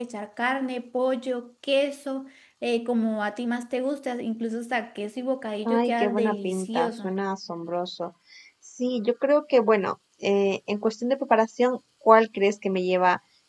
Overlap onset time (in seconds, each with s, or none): 5.6 s